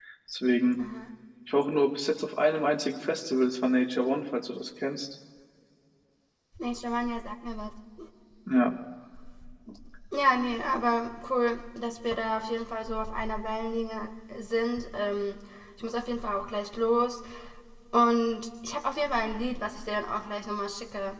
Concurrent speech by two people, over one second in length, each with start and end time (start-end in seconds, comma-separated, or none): none